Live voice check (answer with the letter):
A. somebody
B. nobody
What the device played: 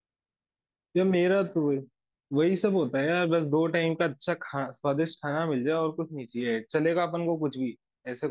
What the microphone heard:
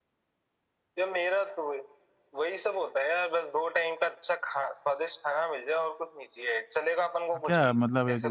A